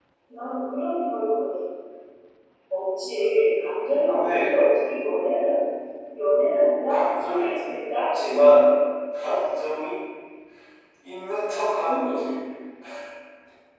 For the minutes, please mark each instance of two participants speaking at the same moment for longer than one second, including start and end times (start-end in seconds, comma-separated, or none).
6.9-8.6